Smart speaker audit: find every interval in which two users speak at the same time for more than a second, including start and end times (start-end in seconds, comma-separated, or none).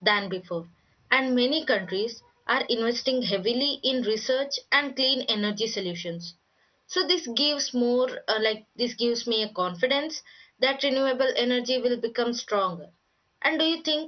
none